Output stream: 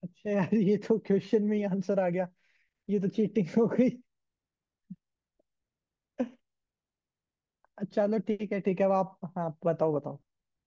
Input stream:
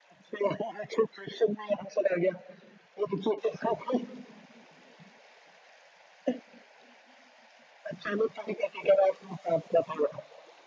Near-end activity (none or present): none